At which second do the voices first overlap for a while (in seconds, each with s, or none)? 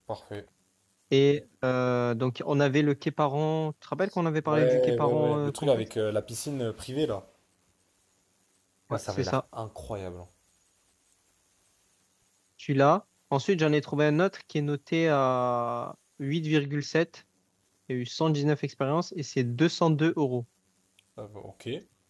4.5 s